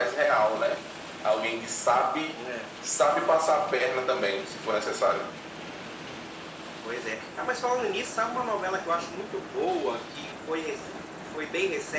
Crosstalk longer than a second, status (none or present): none